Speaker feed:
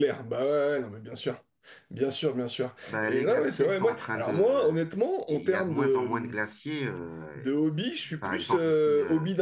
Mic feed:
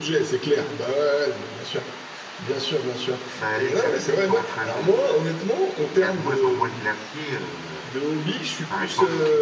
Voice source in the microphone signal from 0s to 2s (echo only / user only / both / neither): echo only